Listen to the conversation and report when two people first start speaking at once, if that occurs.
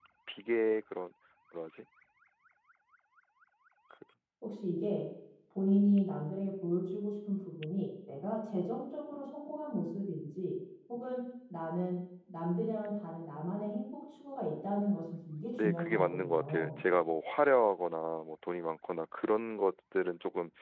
15.5 s

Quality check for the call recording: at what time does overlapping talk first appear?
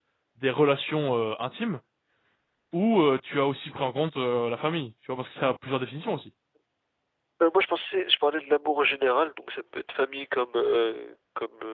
none

